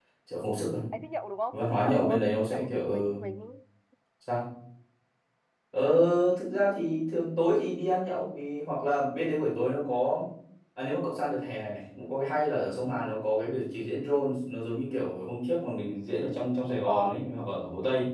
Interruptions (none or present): present